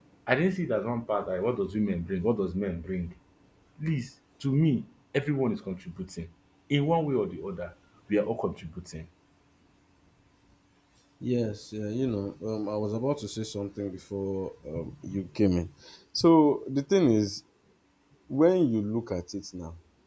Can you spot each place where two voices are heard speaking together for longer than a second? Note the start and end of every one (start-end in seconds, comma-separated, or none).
none